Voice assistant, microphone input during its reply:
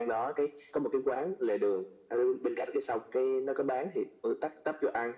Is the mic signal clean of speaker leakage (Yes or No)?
No